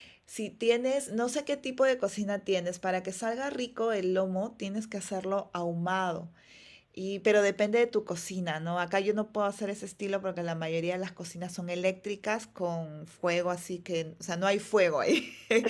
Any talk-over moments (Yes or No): No